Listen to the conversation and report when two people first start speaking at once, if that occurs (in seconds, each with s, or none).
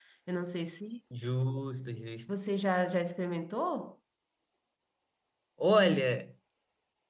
none